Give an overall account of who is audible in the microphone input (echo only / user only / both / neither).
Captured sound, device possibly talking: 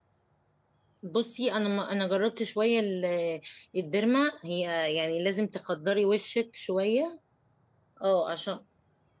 user only